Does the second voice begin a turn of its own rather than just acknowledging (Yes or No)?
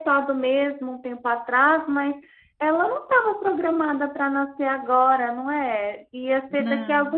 No